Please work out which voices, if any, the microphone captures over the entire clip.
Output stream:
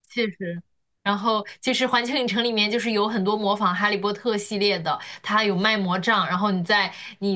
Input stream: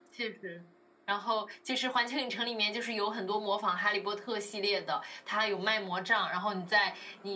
echo only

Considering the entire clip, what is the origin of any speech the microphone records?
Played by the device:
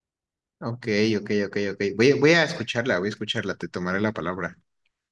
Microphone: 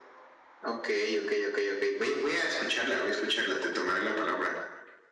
echo only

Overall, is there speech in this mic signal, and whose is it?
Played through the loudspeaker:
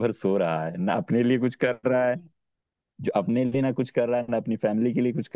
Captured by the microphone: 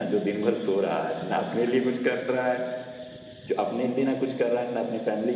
echo only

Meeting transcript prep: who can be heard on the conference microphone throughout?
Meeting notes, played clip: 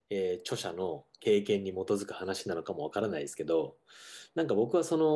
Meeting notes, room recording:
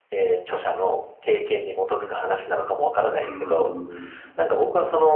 both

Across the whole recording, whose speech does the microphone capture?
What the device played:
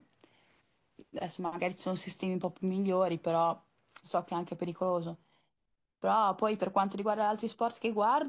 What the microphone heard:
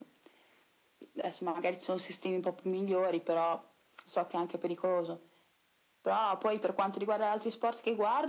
echo only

